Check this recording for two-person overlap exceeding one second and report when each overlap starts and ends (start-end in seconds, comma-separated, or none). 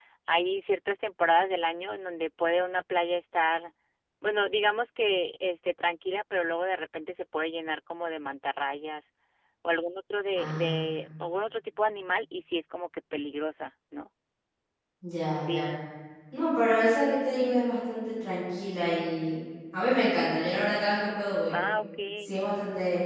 none